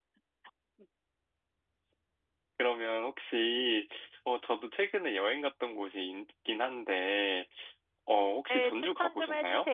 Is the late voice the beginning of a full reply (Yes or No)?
Yes